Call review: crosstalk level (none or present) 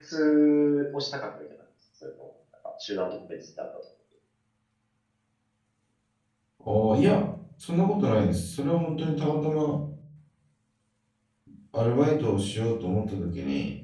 none